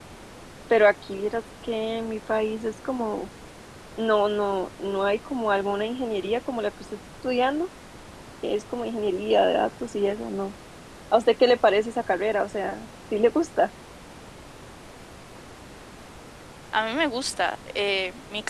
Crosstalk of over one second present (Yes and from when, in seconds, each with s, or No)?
No